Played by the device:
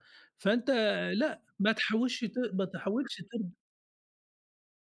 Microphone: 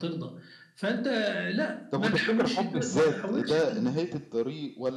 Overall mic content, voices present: both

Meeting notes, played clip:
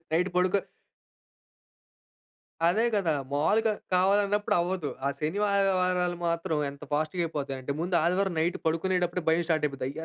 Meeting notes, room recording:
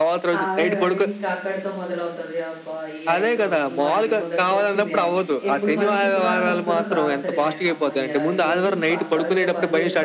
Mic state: both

